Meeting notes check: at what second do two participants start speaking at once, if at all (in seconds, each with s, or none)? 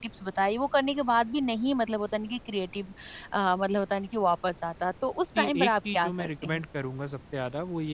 5.3 s